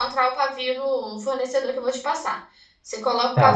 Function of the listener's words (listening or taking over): taking over